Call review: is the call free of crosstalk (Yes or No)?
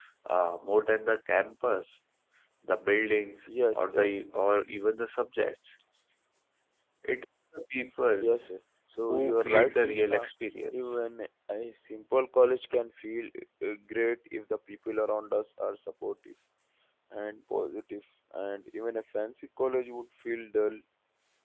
No